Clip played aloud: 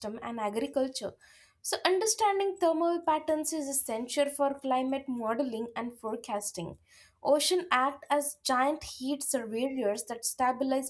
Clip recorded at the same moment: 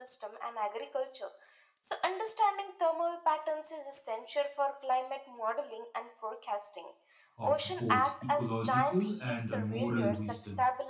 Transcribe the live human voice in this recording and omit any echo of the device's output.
of both ecological and moral wisdom.

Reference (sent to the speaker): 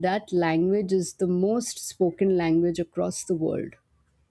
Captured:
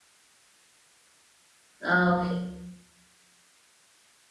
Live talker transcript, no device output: Oh, okay.

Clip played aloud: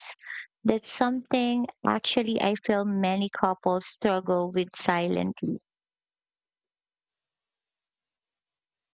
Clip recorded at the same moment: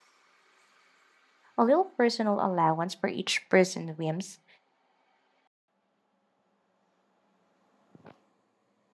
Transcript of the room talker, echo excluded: a little personal allowance for each person's whims.

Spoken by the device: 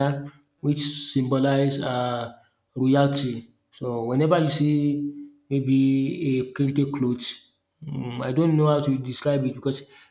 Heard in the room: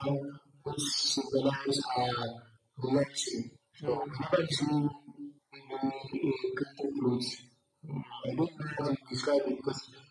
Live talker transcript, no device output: Mm.

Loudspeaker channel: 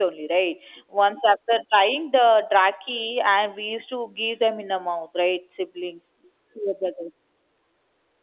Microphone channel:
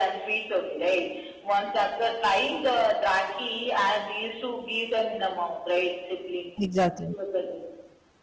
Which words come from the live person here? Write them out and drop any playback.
Exactly.

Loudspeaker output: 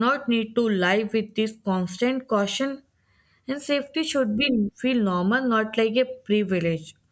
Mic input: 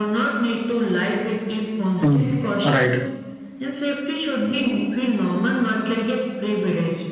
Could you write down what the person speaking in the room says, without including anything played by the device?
Hmm. Right.

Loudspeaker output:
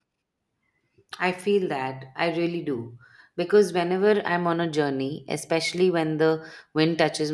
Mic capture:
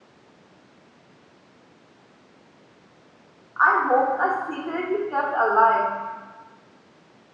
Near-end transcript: and hopes I secretly kept alive.

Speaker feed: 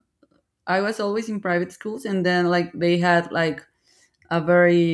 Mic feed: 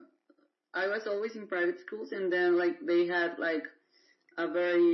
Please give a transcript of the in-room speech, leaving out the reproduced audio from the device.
none

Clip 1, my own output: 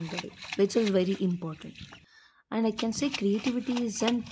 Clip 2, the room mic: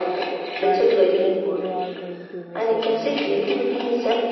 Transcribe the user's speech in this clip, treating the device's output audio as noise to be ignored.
but then you are going to miss out on the journey.

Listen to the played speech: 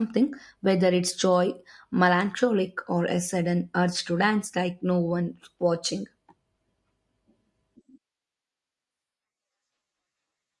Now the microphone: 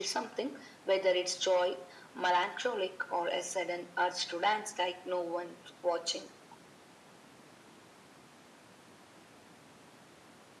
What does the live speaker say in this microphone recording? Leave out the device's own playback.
none

